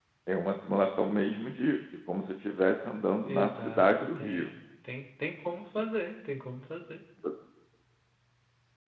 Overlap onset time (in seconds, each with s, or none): 3.2 s